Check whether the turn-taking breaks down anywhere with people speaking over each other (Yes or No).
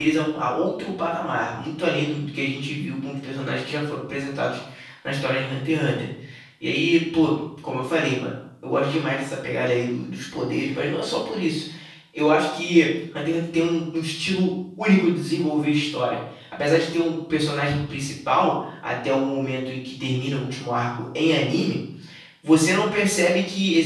No